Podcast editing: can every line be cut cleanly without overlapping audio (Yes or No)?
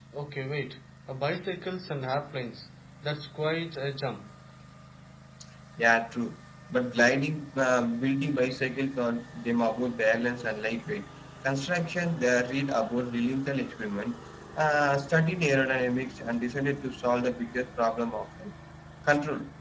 Yes